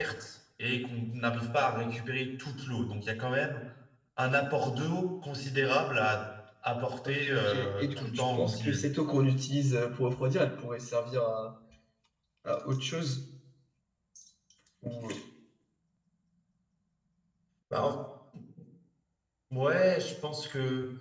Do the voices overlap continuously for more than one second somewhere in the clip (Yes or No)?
Yes